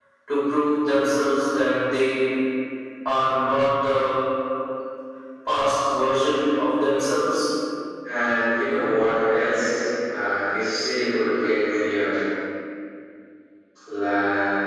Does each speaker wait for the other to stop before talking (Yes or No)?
Yes